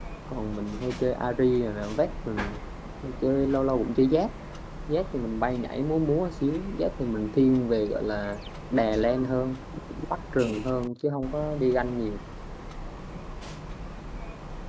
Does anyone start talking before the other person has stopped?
No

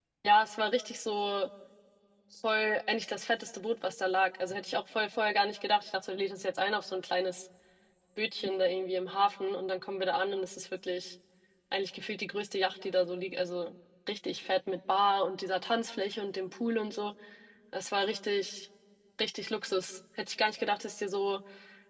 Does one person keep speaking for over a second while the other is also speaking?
No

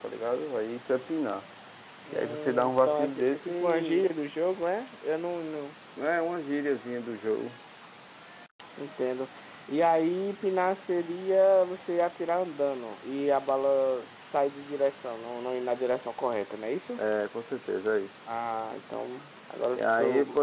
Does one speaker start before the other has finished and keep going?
Yes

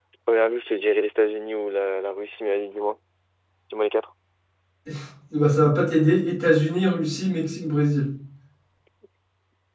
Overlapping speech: No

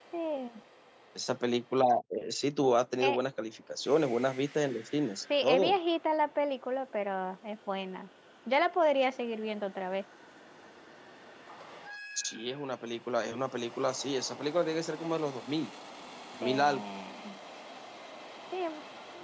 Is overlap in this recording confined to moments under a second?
Yes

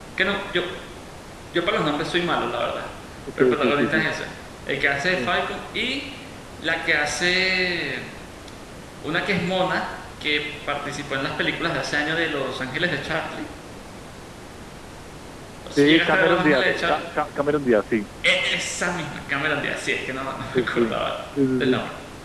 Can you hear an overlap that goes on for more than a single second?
Yes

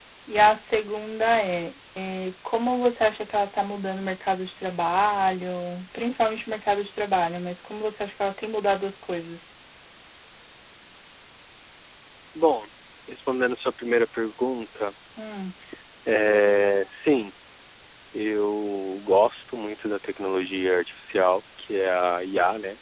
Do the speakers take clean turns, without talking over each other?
Yes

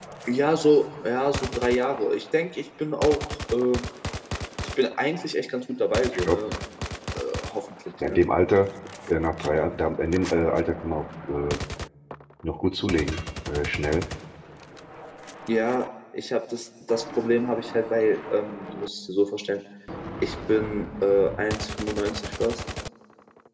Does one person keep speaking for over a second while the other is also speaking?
No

